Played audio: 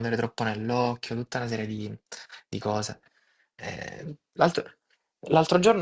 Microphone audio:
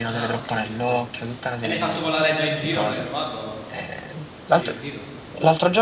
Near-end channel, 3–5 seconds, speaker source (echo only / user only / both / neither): both